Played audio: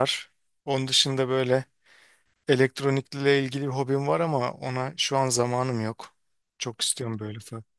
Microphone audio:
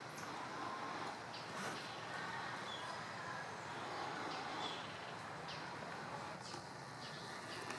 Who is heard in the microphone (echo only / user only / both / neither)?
neither